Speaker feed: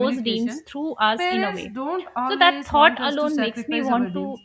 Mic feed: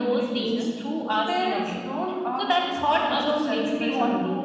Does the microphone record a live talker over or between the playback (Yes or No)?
No